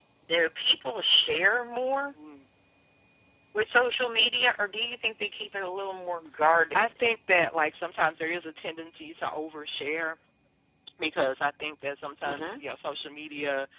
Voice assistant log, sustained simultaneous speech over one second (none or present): none